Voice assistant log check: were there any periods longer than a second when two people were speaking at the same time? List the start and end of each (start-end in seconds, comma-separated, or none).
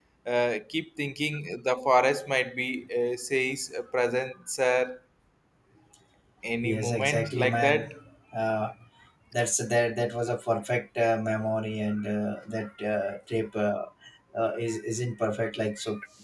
6.6-7.8